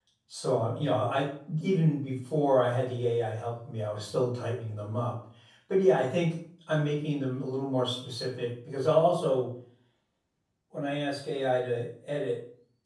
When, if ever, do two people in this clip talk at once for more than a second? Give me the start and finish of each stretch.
none

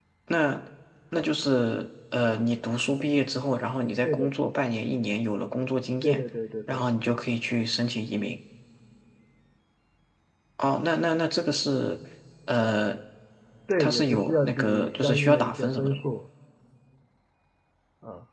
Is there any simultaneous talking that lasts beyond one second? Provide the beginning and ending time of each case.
13.8-16.0

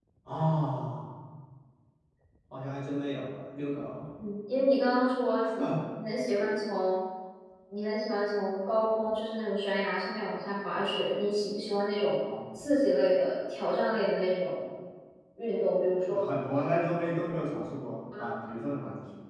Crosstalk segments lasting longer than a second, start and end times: none

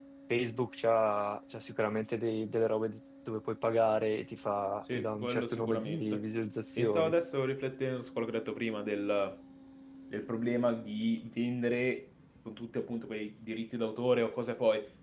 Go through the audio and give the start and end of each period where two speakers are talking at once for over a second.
4.9-6.2

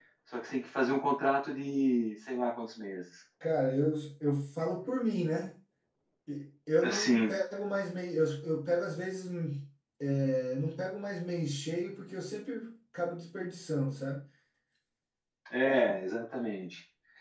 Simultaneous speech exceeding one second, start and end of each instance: none

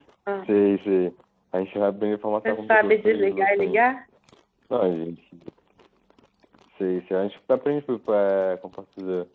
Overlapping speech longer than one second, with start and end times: 2.5-3.8

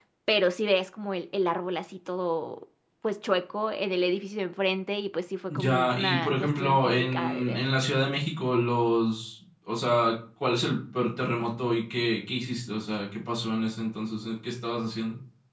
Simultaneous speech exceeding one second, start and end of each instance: 5.5-7.6

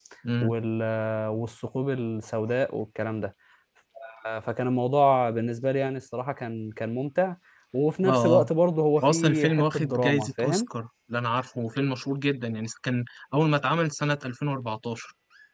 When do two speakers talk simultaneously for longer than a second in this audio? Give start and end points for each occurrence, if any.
9.0-10.7

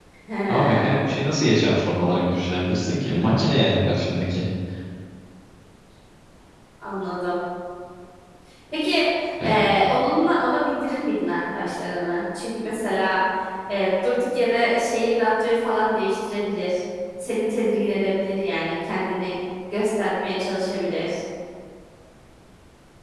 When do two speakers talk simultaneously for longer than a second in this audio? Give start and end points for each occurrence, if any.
none

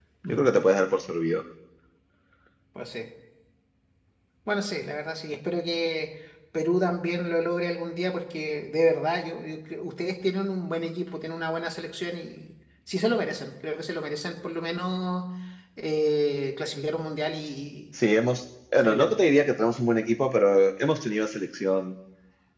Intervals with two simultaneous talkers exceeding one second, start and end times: none

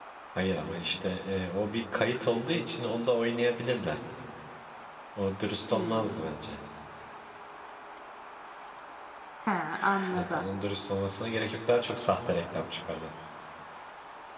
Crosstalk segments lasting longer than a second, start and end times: none

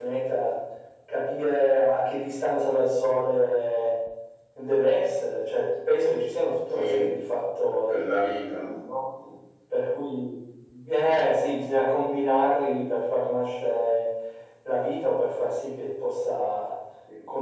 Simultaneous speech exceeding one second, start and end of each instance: none

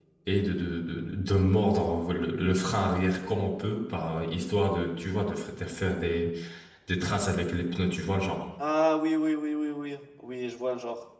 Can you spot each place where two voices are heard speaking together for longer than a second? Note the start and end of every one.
none

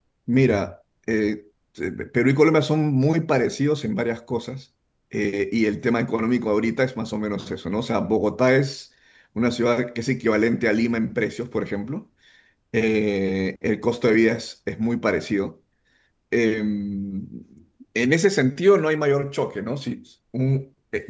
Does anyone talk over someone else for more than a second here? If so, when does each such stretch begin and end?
none

